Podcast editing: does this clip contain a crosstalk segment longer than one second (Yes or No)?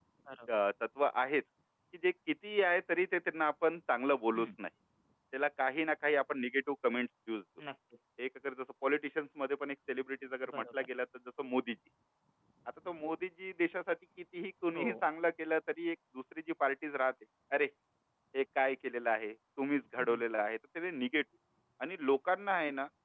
No